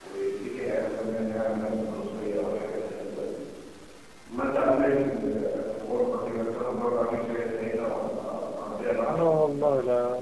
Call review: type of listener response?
taking over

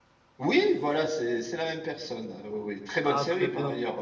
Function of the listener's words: taking over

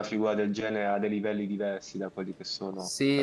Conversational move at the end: taking over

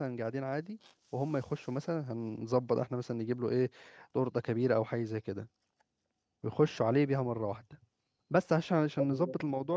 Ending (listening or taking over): listening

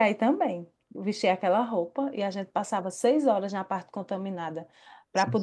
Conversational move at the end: listening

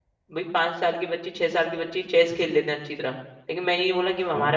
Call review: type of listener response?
listening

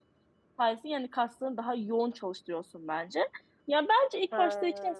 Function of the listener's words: listening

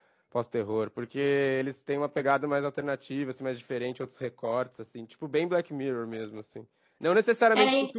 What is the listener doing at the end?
listening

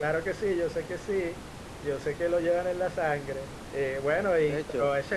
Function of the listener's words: taking over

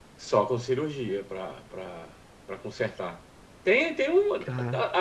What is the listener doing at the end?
listening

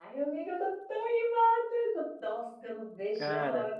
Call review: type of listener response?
listening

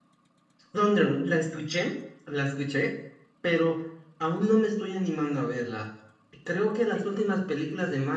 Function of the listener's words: listening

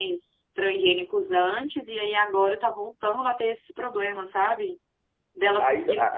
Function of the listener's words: taking over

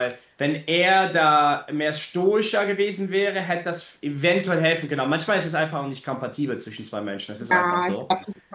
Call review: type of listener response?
taking over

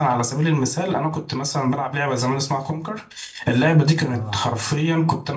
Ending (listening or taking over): listening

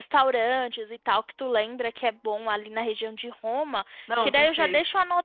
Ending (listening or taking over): listening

